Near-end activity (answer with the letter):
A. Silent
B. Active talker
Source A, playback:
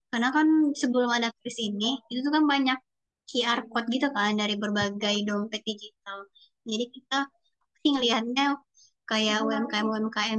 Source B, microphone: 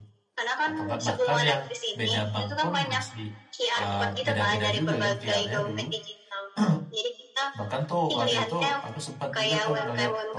B